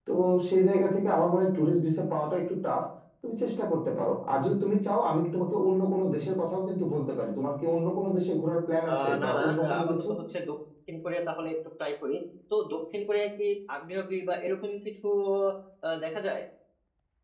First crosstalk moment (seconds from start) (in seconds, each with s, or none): 8.9 s